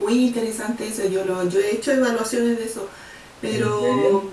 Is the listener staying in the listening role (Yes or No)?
Yes